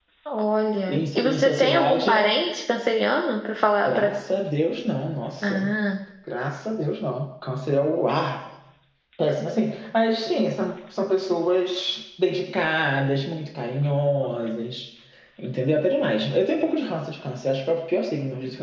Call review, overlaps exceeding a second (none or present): present